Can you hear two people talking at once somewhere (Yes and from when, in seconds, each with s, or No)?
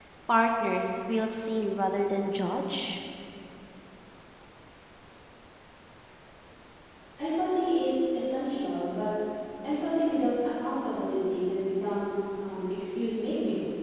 No